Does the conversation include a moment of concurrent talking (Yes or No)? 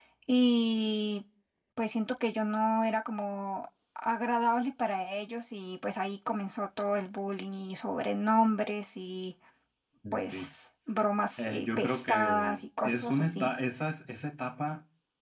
Yes